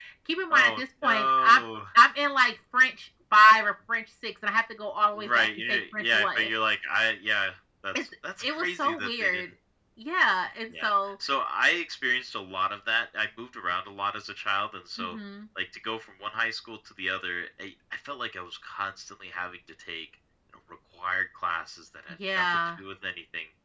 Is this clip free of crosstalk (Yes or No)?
No